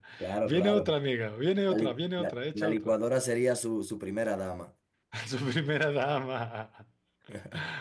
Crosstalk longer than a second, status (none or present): present